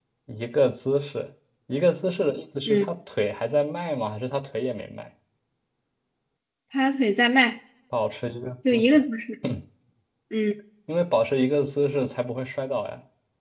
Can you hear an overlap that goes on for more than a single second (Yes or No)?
No